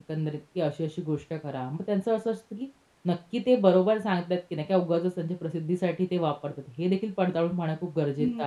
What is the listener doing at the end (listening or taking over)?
taking over